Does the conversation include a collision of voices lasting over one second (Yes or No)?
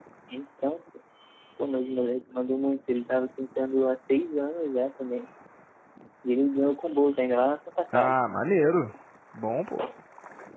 No